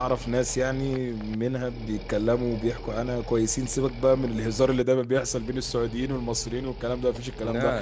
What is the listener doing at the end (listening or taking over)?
listening